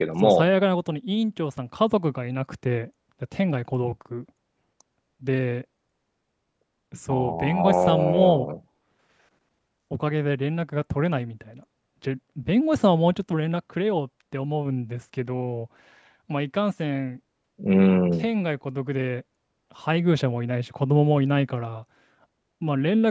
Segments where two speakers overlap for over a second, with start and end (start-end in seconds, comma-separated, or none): 7.1-8.5